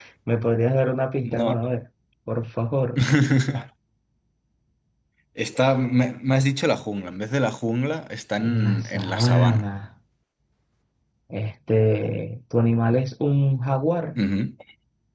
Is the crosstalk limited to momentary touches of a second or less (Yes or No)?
No